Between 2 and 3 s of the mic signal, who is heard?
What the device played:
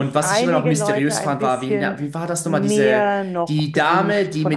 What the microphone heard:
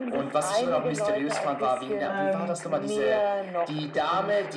both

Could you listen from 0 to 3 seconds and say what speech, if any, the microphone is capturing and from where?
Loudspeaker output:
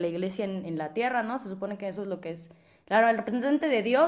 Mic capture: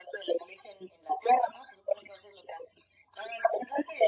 echo only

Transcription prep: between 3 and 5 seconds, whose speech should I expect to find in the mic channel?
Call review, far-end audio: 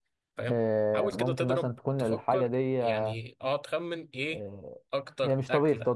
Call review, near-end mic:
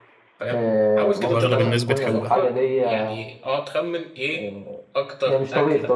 echo only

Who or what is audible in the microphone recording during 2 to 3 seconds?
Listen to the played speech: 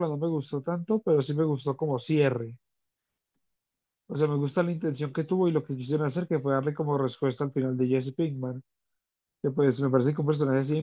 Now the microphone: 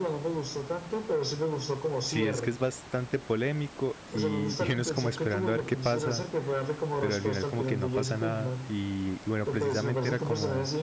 both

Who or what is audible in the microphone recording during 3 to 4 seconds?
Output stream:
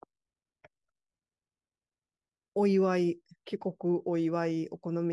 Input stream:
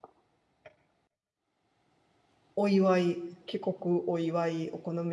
echo only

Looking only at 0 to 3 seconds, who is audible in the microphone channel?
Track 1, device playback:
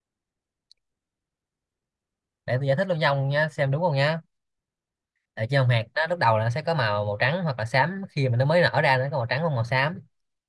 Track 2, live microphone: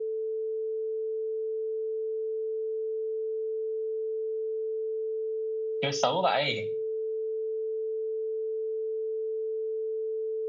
neither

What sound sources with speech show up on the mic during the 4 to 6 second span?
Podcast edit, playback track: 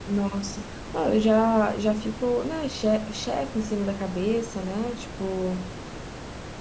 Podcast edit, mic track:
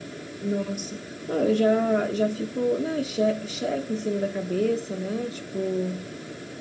echo only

